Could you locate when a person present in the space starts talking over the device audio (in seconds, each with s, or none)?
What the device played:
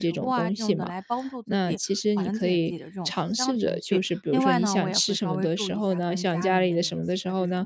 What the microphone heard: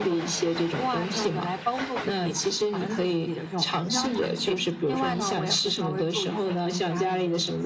3.9 s